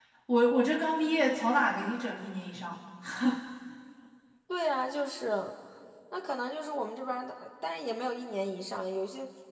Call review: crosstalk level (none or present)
none